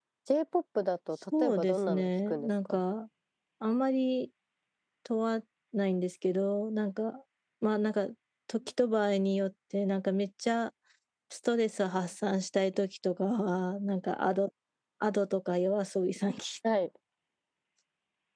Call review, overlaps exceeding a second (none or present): present